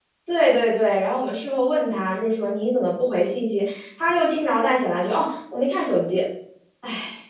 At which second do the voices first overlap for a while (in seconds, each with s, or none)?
none